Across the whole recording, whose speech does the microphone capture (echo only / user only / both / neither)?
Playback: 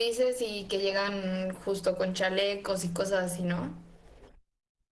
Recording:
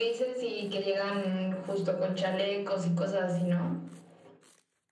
echo only